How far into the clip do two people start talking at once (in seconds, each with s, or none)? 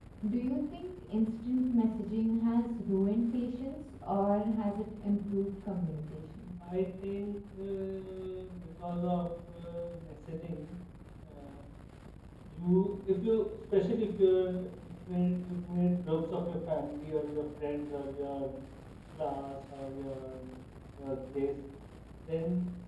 none